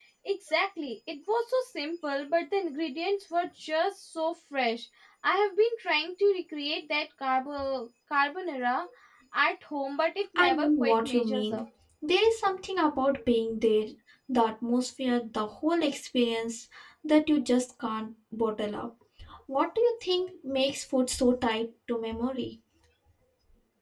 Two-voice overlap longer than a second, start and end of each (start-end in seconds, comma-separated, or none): 10.4-11.6